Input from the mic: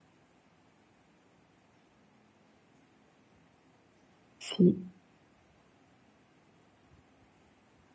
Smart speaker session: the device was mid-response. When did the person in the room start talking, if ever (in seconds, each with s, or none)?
4.4 s